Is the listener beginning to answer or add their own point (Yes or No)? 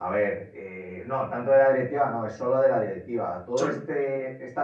No